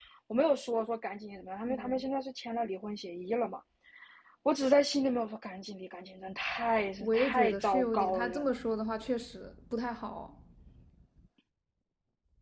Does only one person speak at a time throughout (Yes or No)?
No